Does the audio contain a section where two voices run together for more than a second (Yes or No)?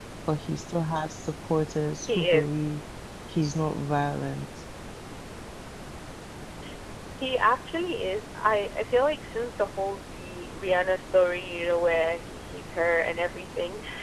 No